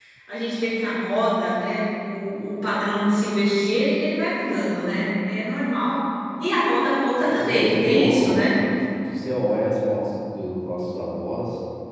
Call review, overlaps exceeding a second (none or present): present